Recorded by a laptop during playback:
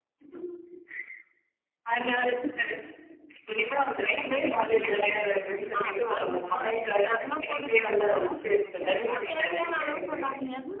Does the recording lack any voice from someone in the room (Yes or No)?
No